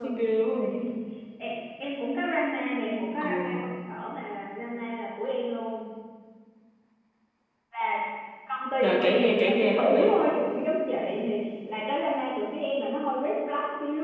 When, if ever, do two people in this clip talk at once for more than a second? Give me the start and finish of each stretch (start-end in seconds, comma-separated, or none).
8.8-10.2